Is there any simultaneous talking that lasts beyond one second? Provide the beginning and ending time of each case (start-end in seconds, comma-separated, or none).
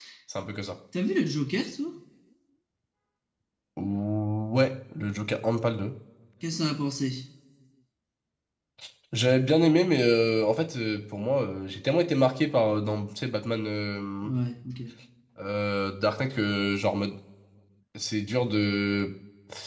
none